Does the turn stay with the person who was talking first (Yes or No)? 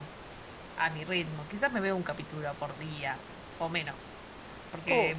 Yes